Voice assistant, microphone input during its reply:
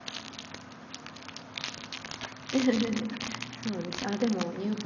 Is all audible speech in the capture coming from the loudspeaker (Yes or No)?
No